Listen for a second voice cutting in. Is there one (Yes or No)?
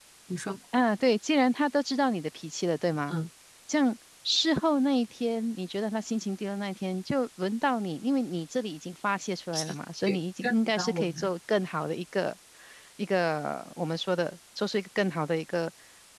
Yes